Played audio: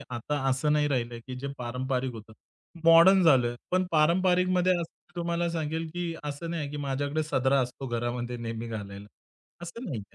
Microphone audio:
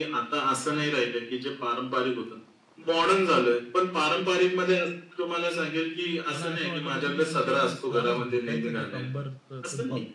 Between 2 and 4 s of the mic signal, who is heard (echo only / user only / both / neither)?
echo only